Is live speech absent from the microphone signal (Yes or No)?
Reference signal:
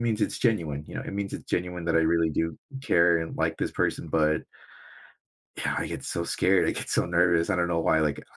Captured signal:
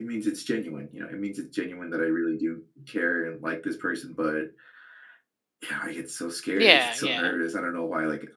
No